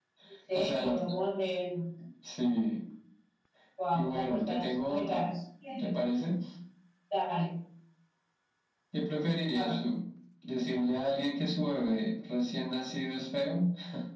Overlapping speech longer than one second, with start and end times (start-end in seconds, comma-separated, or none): 3.9-5.2